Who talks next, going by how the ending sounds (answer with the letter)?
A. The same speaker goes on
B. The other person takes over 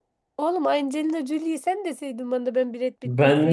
B